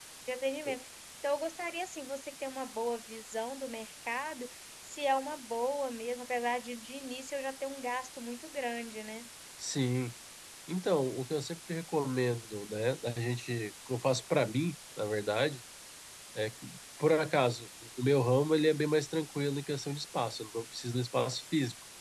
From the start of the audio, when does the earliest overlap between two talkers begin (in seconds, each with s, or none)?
none